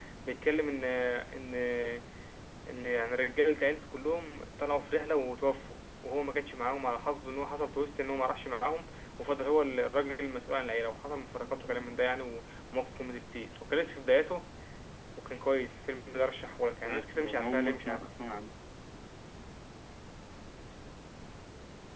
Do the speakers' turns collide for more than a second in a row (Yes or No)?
Yes